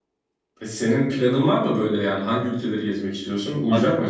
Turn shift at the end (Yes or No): Yes